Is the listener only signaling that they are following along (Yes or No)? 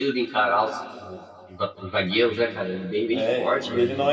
No